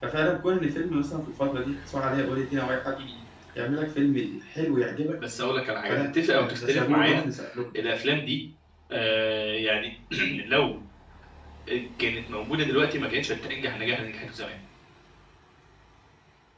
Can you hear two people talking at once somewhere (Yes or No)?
Yes